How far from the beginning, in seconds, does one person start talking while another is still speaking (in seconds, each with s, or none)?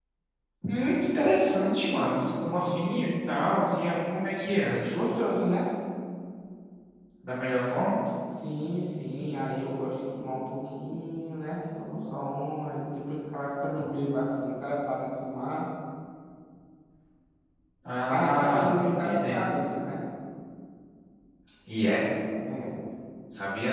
18.1 s